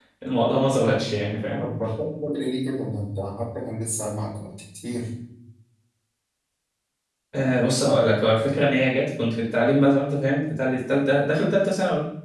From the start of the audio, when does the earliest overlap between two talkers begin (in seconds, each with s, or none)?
none